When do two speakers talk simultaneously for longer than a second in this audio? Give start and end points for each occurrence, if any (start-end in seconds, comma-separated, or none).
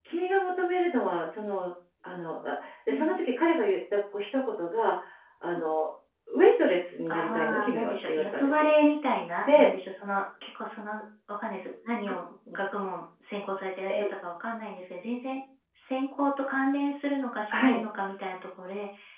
7.1-8.7